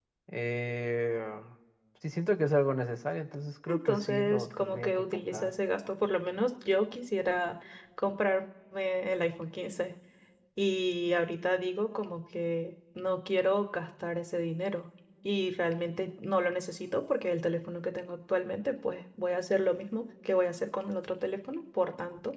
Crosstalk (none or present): present